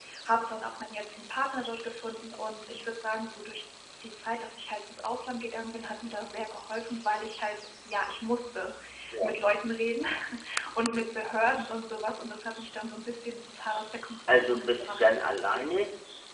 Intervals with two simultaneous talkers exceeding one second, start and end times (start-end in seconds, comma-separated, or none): 14.3-15.7